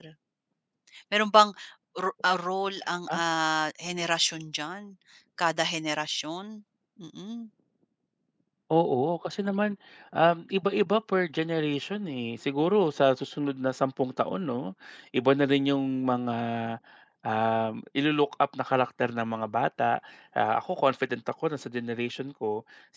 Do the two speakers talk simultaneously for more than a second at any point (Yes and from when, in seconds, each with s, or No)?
No